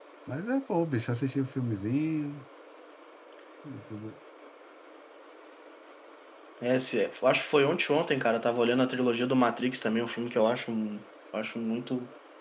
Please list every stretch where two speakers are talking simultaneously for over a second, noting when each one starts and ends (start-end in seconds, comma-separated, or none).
none